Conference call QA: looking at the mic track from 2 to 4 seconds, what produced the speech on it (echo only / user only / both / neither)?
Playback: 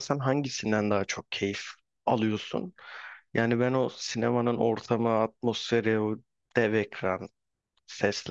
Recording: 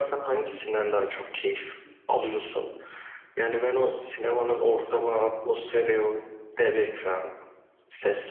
echo only